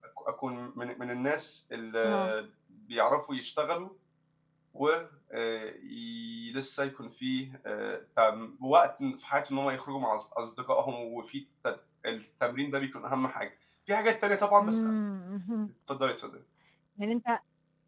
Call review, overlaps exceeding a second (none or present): none